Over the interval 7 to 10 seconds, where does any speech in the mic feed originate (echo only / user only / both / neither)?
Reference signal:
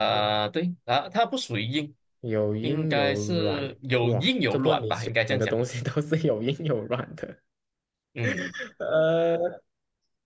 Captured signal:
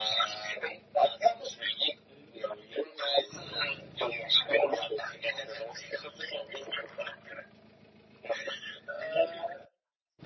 echo only